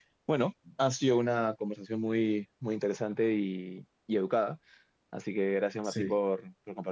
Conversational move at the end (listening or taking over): listening